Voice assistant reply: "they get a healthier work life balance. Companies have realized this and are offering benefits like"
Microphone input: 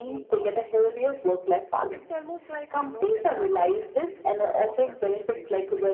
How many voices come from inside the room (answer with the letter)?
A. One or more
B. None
A